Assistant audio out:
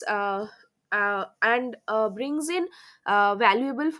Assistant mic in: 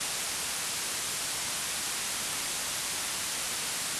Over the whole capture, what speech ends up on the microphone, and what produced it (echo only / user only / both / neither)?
neither